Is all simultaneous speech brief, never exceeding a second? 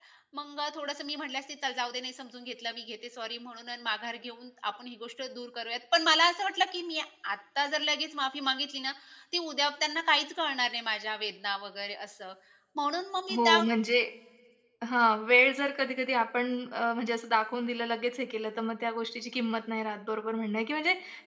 Yes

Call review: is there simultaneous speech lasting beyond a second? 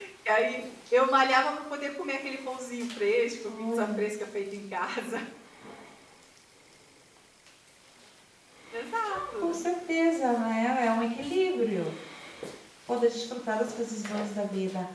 No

